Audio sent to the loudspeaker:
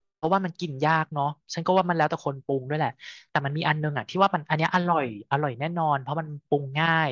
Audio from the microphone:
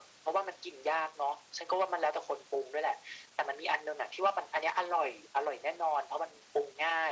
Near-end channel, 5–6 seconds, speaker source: echo only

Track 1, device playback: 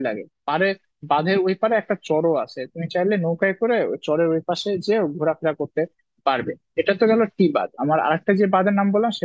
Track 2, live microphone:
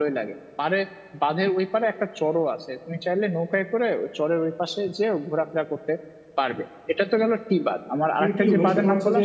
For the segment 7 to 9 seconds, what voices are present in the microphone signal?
both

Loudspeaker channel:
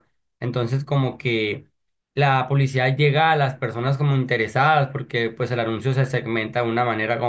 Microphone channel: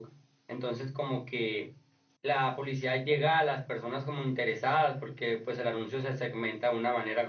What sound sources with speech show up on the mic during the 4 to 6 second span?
echo only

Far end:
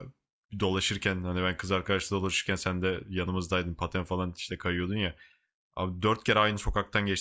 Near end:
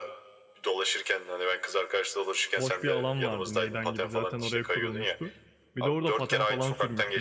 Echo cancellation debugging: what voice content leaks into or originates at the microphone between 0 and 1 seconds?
echo only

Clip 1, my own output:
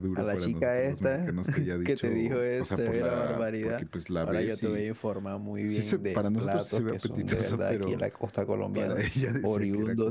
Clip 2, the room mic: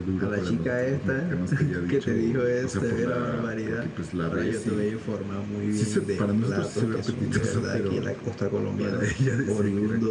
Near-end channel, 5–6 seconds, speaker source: echo only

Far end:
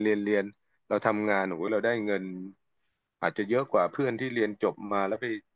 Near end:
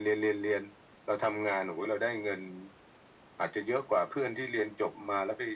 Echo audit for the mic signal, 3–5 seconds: echo only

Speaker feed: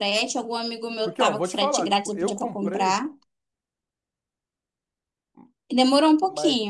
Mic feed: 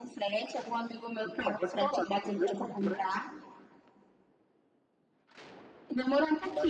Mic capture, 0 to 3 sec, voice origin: echo only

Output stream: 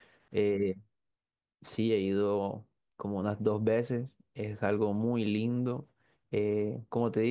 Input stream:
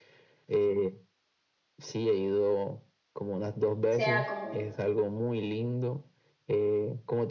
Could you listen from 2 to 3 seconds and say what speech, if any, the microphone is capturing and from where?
echo only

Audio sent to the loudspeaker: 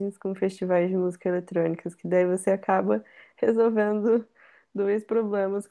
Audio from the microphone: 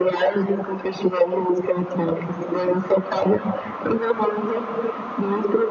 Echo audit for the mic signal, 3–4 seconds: echo only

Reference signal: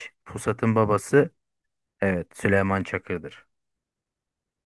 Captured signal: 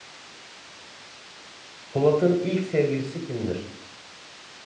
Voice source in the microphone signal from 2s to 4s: user only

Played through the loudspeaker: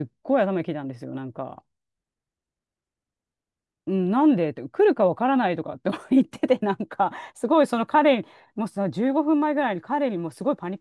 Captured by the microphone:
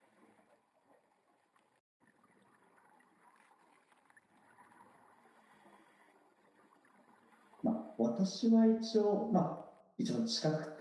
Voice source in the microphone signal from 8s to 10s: user only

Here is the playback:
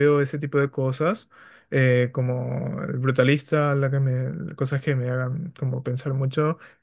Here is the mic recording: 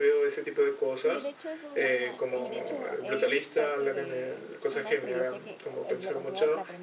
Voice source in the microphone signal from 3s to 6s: both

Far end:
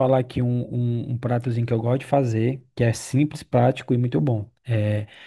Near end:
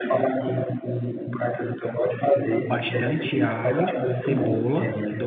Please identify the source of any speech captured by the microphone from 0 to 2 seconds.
echo only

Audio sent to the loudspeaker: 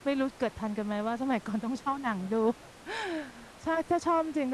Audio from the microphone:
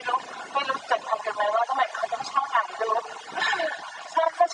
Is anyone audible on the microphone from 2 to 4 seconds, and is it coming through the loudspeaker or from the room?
echo only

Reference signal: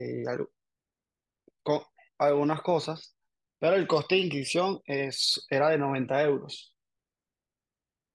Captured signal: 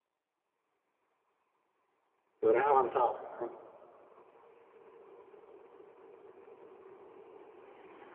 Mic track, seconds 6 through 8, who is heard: neither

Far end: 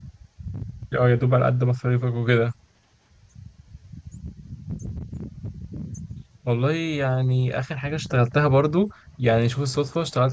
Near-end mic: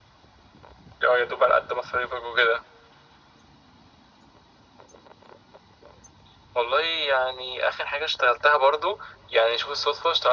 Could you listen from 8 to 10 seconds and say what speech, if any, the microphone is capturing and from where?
echo only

